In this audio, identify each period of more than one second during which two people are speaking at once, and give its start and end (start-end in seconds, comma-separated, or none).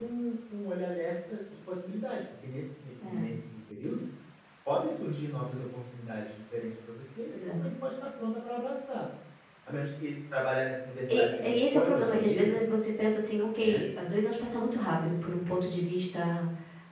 11.1-12.6